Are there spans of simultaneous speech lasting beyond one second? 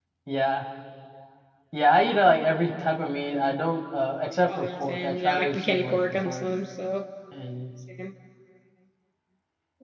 Yes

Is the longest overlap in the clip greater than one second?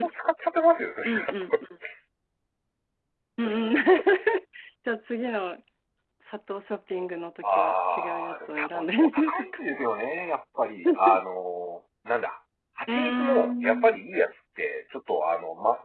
Yes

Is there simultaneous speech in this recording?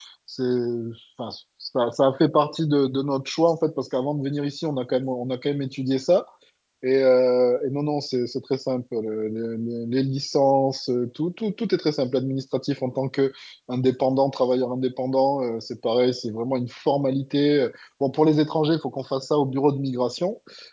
No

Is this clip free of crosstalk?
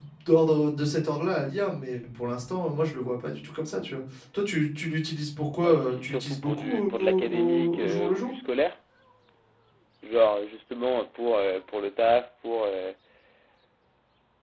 No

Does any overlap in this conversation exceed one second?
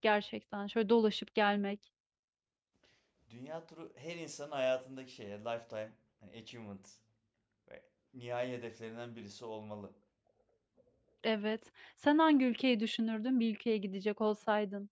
No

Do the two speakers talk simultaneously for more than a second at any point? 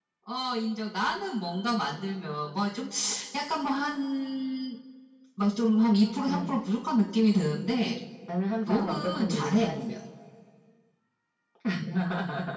Yes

